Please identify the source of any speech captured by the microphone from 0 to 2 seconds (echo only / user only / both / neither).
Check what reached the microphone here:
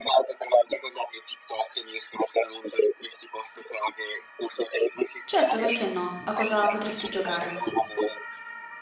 echo only